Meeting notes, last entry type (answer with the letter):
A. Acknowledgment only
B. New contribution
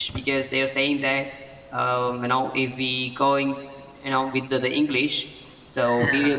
A